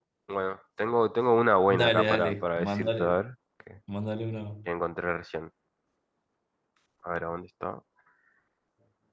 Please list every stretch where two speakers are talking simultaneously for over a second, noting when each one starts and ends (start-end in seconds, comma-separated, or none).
1.7-3.2